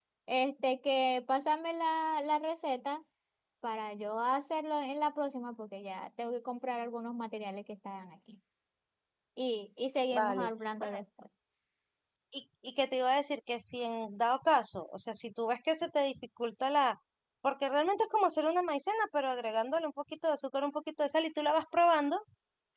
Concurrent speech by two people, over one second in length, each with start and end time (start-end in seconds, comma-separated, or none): none